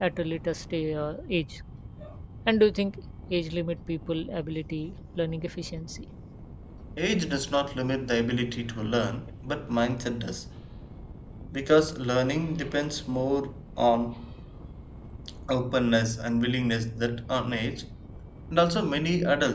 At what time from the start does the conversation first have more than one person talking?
none

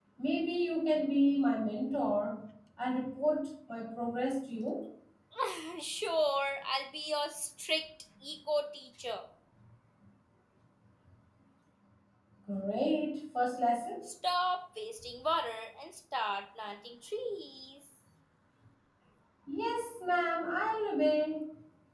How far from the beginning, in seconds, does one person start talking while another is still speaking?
none

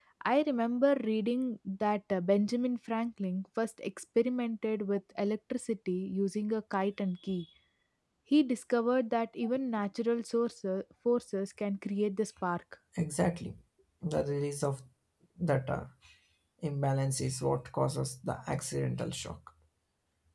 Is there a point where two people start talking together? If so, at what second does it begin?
none

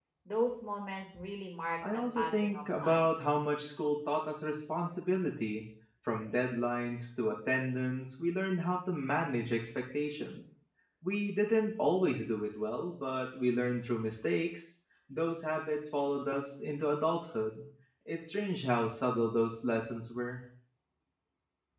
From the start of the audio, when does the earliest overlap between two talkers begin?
1.8 s

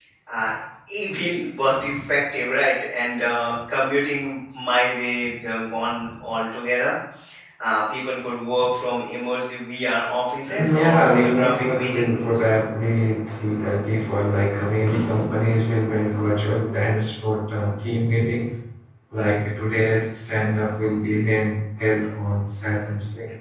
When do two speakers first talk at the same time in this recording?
10.7 s

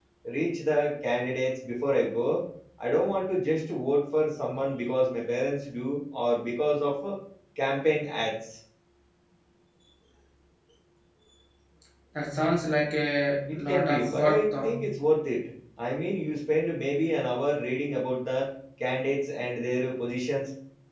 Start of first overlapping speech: 13.5 s

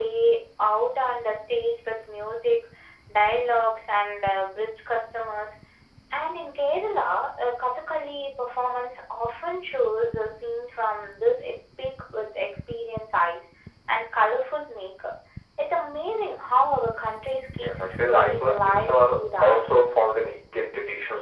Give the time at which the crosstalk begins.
17.6 s

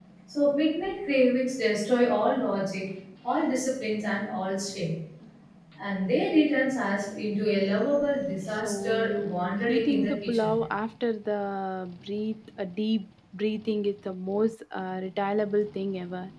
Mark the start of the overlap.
8.6 s

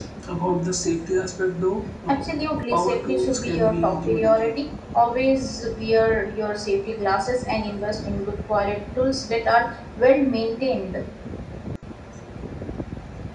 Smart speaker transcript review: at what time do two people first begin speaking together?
2.7 s

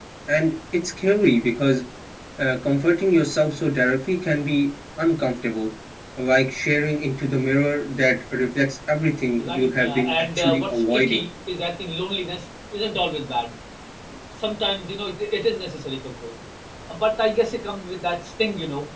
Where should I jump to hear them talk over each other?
9.4 s

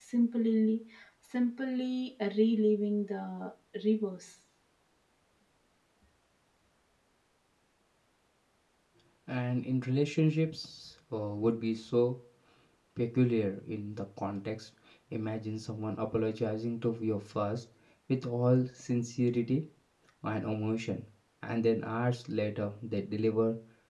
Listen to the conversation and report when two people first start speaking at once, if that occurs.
none

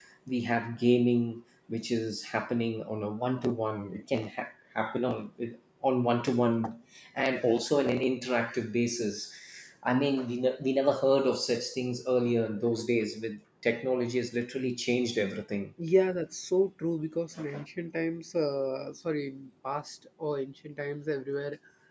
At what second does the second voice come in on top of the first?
none

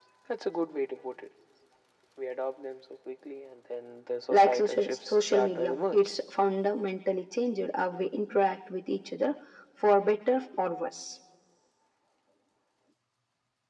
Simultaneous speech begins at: 4.3 s

